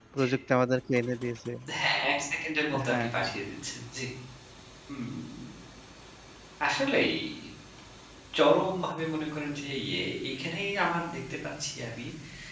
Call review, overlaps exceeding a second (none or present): none